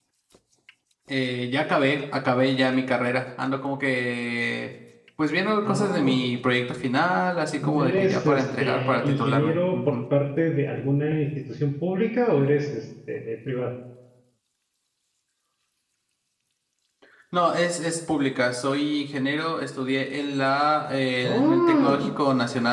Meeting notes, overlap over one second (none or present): present